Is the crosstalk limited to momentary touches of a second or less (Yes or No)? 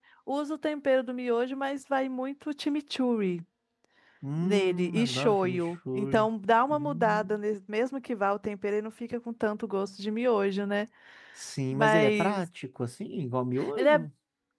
No